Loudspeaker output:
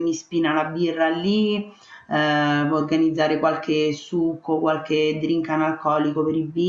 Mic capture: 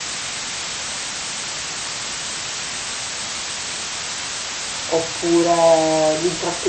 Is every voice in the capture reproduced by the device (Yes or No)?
No